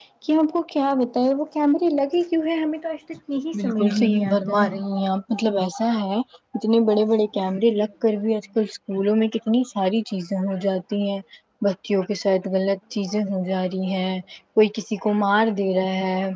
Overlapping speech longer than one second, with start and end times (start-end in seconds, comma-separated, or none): 3.6-4.8